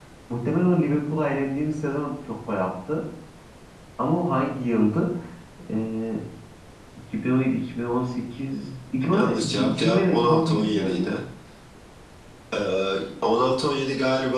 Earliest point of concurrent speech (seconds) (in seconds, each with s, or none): 9.1 s